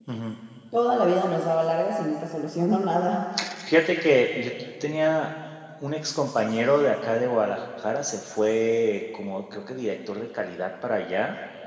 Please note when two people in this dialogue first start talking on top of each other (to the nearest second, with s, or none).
none